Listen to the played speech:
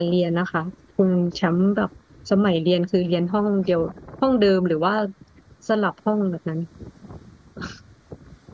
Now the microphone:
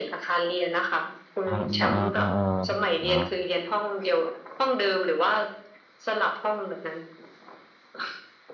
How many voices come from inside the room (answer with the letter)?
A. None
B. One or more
B